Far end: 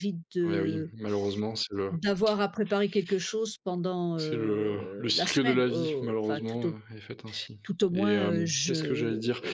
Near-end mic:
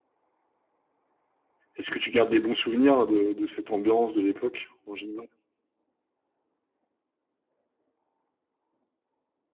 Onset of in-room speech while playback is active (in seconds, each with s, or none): 1.7 s